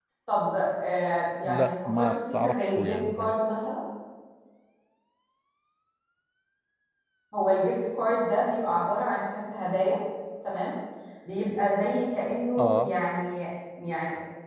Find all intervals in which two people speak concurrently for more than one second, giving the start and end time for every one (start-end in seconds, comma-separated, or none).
1.4-3.3